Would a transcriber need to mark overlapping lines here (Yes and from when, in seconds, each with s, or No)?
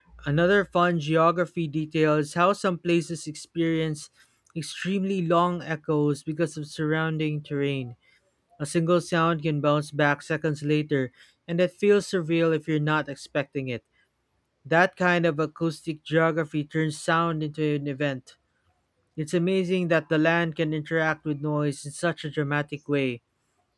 No